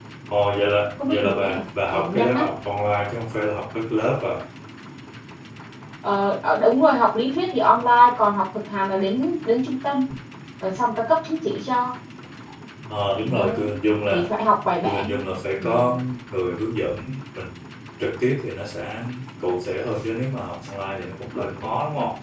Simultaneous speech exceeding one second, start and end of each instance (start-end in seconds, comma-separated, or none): 1.0-2.5